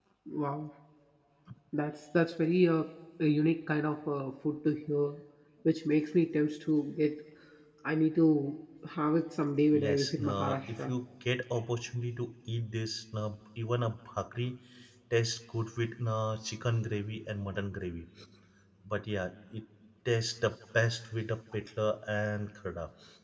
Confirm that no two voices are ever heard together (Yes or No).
No